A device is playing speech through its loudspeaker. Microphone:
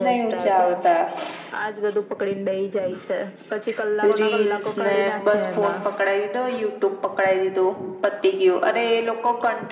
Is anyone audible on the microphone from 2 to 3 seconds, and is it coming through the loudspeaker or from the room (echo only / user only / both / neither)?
echo only